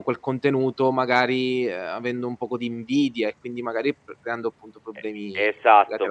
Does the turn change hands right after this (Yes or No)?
Yes